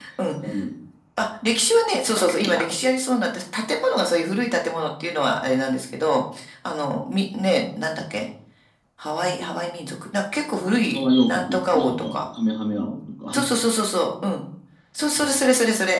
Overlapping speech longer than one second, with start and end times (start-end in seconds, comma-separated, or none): 10.9-12.2